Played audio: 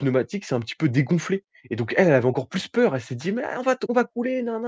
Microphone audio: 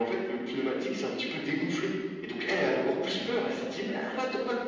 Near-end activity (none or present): present